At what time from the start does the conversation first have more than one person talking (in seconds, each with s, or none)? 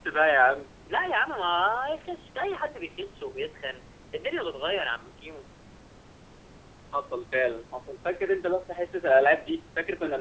none